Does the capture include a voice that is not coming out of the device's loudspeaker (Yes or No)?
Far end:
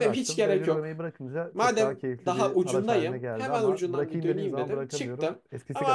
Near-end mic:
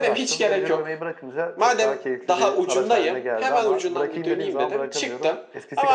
No